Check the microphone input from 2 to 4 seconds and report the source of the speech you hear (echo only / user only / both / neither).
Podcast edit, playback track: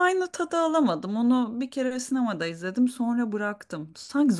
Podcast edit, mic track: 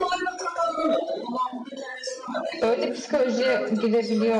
both